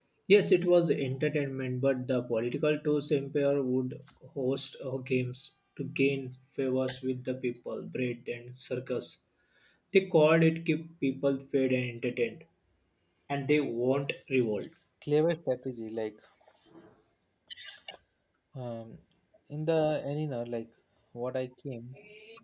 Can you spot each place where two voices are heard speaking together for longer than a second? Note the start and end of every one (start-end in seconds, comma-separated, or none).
none